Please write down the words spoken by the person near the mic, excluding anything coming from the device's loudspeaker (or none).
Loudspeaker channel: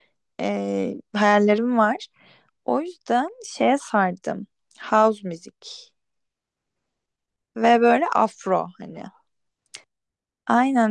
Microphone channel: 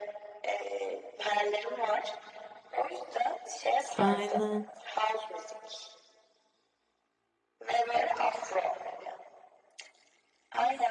Aynen.